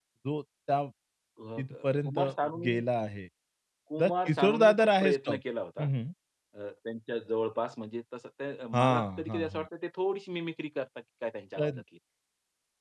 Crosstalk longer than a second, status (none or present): present